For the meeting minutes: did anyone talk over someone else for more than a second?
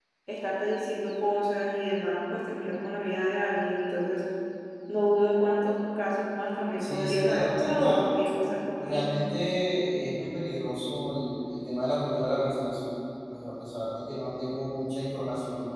Yes, from 6.8 s

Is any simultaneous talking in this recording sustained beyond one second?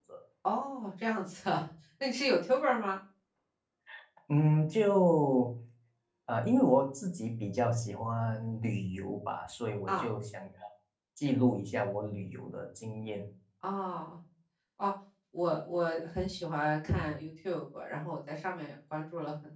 No

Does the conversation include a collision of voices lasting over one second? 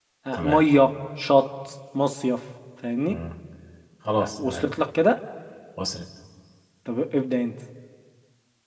No

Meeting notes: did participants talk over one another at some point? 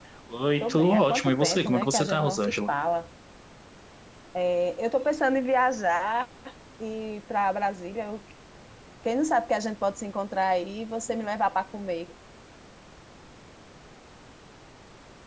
Yes, from 0.6 s

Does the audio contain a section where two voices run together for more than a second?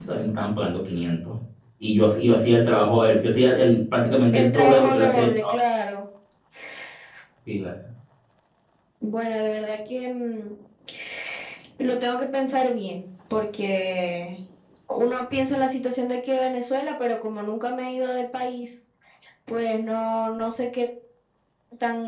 Yes, from 4.3 s

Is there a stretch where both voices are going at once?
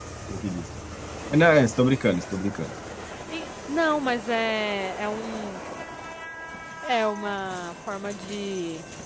No

